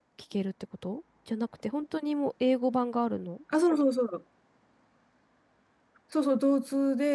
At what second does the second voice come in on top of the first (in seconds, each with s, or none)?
none